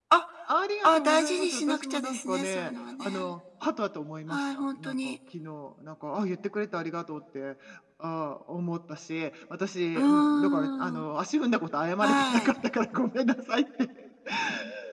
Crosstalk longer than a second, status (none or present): present